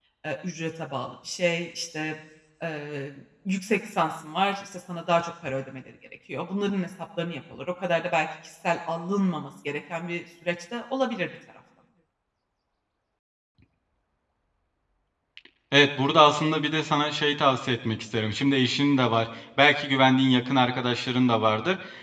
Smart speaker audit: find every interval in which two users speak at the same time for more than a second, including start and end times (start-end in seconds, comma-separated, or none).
none